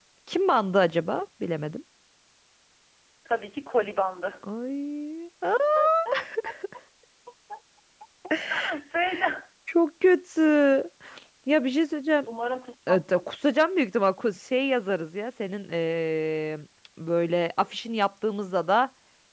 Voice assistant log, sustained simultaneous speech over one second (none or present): none